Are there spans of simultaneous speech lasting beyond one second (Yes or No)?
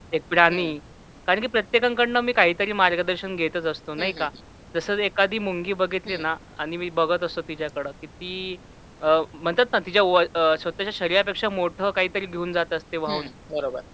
No